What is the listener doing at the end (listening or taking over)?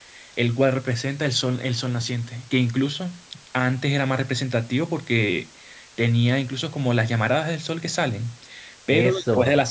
listening